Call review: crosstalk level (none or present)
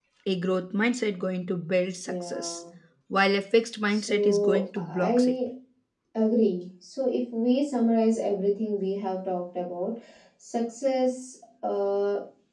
present